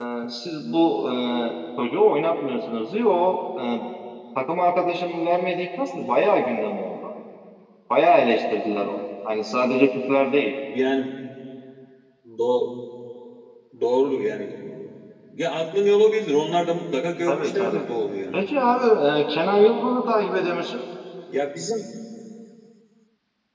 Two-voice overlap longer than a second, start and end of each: none

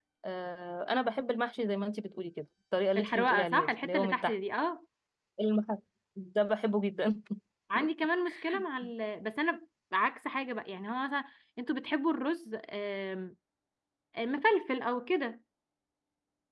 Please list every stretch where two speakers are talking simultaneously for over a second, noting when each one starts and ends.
3.0-4.3

